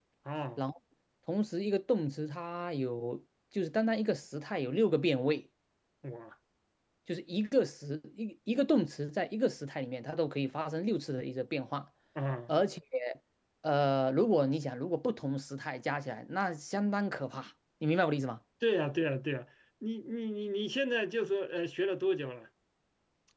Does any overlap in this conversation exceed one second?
No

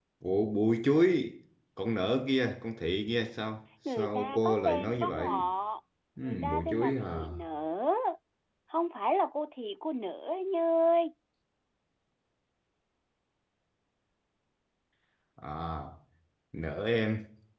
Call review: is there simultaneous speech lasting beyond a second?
Yes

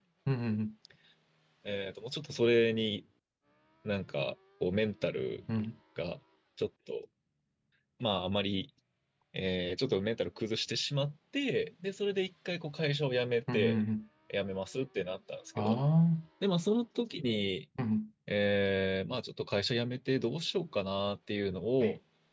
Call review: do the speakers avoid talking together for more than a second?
Yes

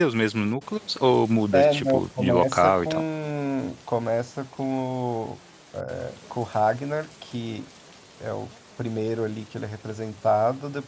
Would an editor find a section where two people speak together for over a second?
Yes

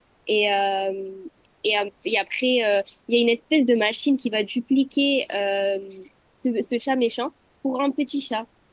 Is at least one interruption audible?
No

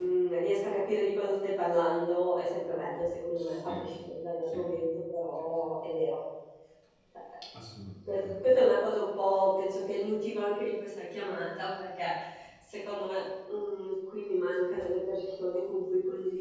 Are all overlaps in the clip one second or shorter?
Yes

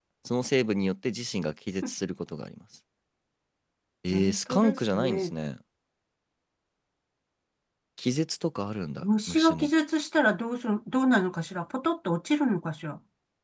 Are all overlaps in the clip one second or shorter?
No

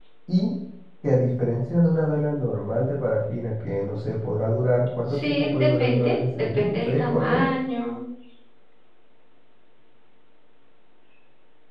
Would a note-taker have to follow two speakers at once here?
Yes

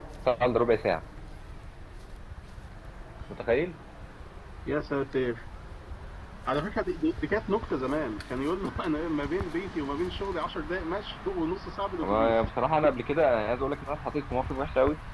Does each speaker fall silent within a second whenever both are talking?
Yes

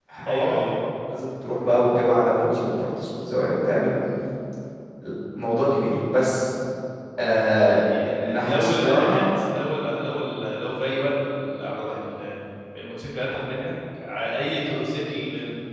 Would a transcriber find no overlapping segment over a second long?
No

